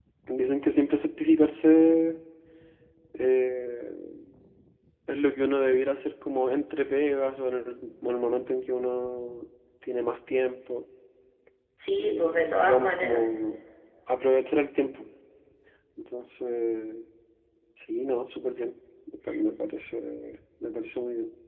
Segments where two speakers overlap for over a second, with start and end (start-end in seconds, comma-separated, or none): 12.0-13.3